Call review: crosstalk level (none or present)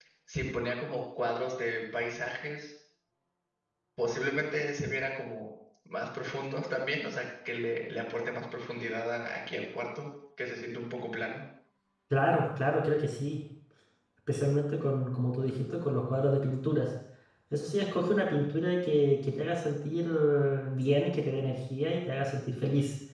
none